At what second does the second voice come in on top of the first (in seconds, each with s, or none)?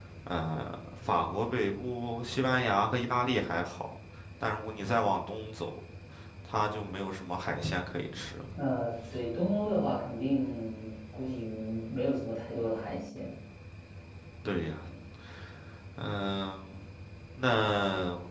none